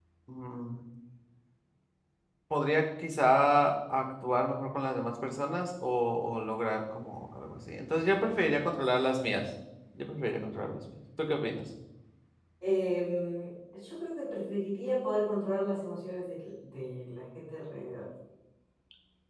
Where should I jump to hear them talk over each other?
none

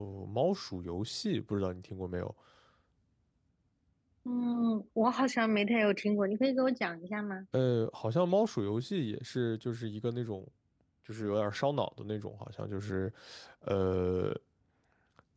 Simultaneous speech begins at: none

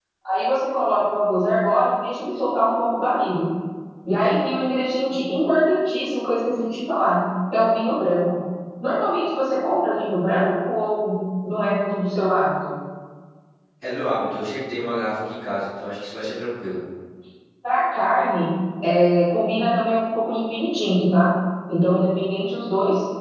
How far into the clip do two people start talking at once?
none

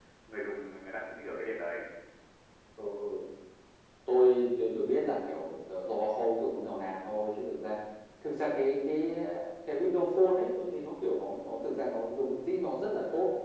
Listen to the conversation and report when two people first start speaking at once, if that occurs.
none

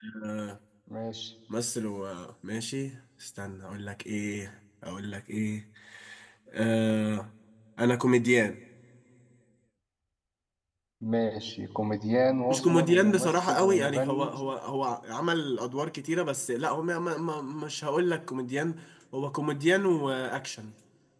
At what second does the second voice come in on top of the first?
12.4 s

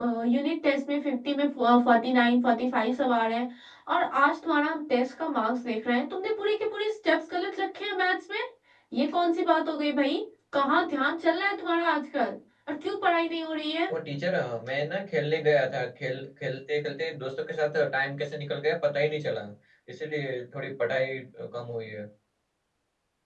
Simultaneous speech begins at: none

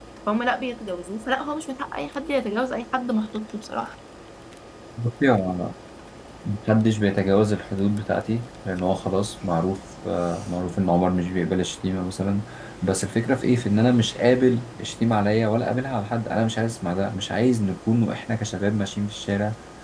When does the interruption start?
none

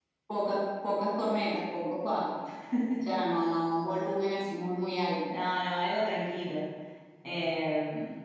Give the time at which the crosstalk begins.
none

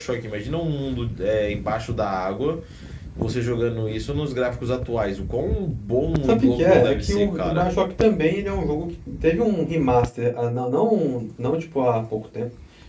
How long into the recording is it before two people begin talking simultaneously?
6.3 s

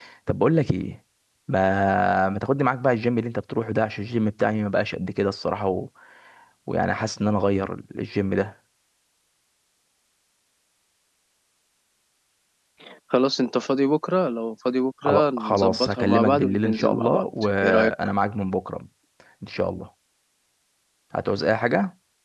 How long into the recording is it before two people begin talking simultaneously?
15.0 s

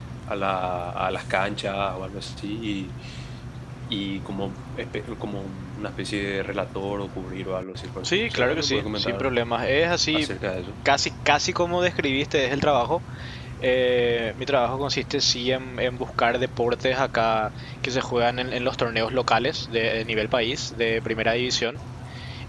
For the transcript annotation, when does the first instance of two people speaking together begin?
8.0 s

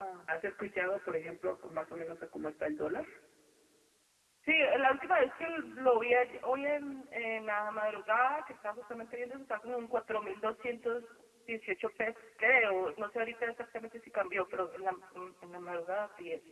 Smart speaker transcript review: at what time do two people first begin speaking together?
none

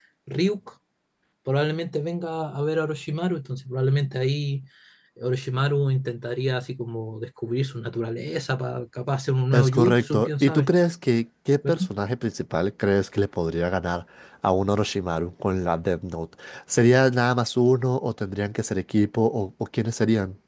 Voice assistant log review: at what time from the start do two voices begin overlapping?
9.5 s

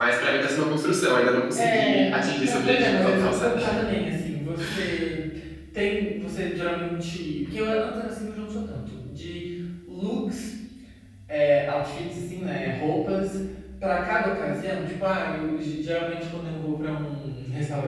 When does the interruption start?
1.6 s

